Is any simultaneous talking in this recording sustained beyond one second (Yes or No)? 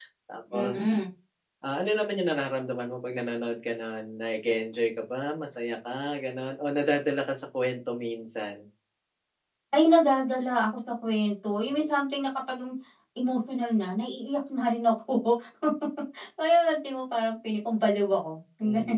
No